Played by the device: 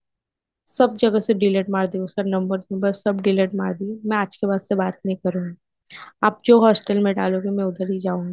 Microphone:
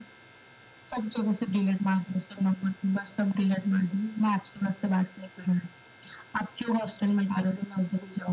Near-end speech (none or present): none